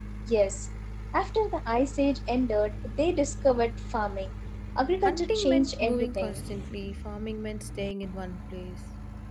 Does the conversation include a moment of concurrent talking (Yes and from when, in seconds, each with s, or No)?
Yes, from 5.1 s